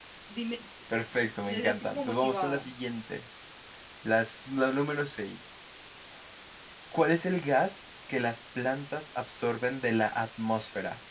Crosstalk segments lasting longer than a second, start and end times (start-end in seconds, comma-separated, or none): 1.1-2.6